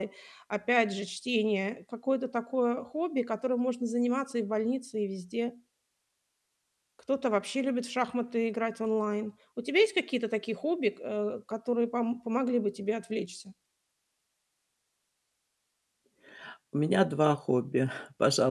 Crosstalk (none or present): none